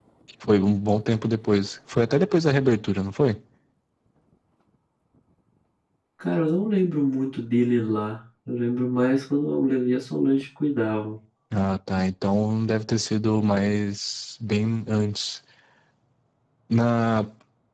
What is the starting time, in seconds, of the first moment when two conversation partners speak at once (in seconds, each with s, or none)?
none